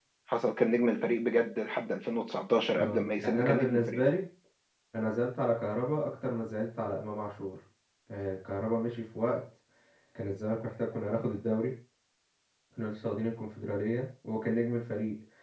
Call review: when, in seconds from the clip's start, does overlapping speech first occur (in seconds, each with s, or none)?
2.8 s